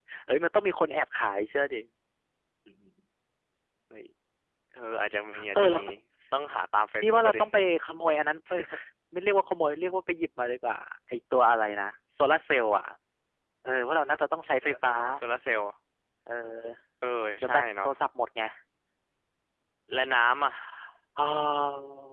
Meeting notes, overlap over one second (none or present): none